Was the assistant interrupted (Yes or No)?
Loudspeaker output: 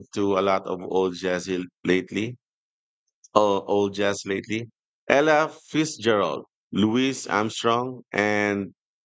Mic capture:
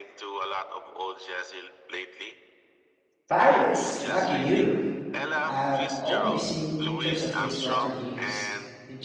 Yes